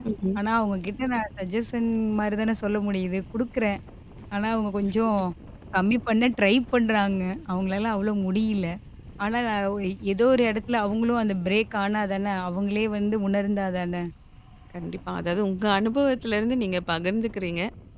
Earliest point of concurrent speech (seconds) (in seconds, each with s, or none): none